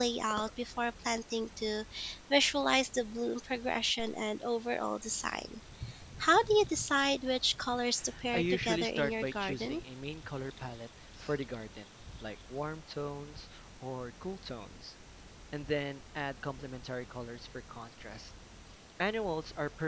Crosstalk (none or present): present